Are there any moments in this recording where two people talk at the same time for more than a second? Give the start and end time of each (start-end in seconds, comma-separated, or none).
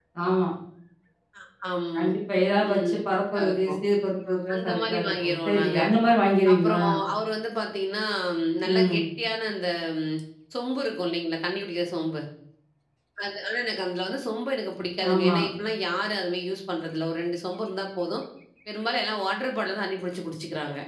4.5-5.8